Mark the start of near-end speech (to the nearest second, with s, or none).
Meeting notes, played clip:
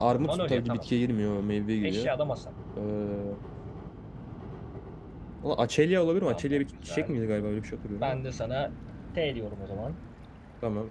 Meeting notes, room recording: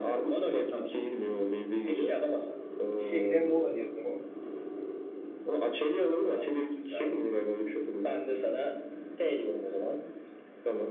3 s